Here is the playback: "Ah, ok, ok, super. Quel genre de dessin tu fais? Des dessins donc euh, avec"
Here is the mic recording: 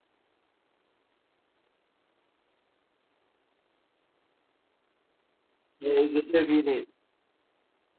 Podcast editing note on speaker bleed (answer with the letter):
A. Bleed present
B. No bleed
B